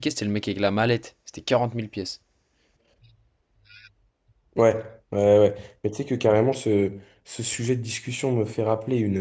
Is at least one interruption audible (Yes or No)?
No